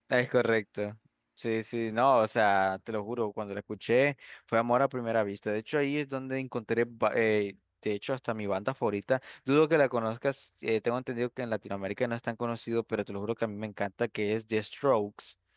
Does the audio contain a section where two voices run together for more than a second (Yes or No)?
No